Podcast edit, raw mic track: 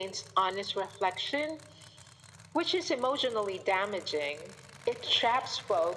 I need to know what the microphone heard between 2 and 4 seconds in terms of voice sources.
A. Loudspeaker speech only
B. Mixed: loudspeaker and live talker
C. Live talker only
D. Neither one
A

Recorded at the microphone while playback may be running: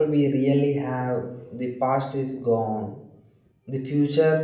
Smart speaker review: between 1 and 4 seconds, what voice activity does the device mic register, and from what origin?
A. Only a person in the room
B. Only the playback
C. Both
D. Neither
A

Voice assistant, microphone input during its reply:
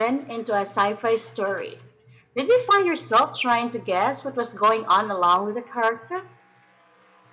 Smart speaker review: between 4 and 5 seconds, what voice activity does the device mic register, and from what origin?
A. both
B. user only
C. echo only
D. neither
B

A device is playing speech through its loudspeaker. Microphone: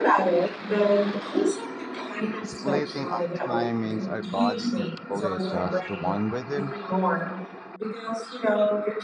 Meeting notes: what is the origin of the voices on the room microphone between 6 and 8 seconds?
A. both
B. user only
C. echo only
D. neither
A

